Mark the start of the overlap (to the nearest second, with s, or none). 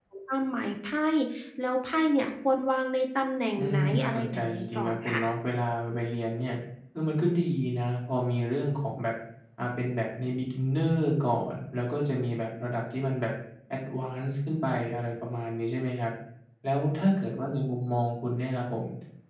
4 s